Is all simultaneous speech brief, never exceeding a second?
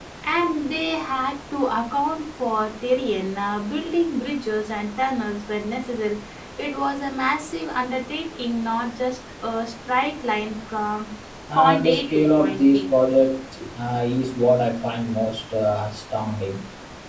No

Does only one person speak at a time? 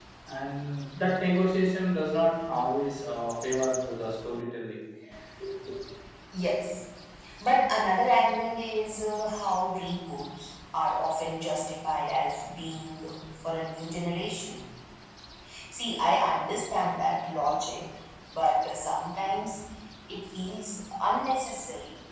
Yes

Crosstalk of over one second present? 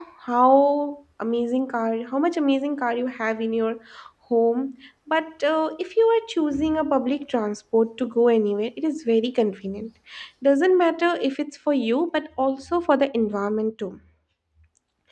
No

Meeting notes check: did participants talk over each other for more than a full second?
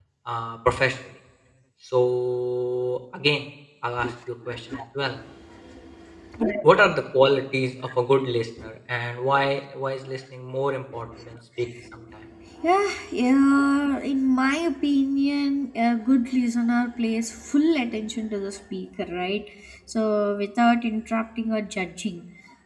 No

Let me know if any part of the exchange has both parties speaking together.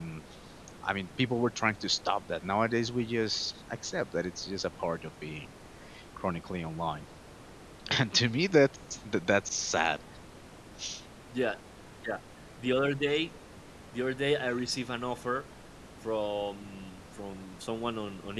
No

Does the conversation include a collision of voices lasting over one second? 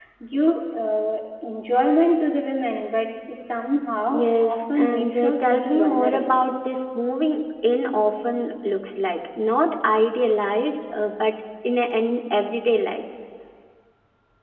Yes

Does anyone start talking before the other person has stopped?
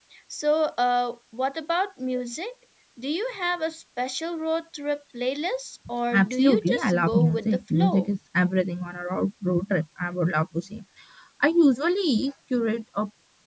Yes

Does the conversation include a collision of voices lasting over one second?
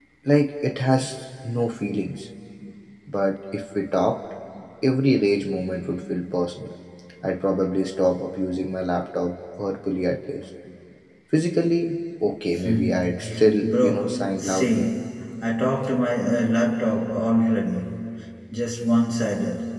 Yes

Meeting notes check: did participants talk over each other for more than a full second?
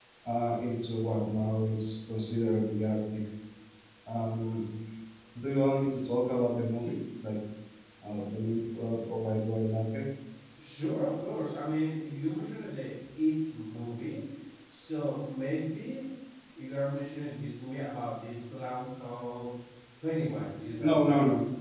No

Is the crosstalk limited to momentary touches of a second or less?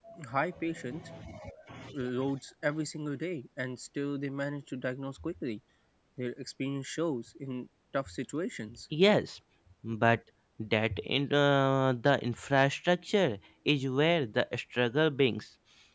Yes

